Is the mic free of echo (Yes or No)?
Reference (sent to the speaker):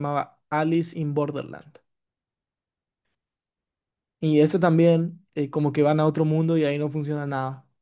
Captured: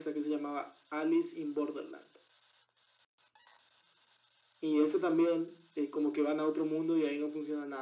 No